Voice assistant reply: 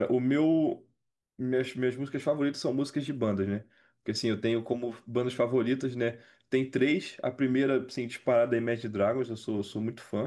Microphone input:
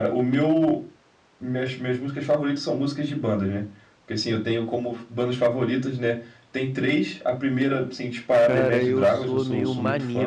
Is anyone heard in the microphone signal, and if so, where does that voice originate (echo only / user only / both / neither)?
both